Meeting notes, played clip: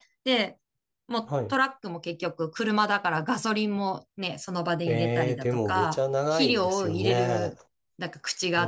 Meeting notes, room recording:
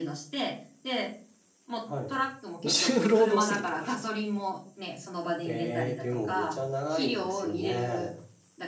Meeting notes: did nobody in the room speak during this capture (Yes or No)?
No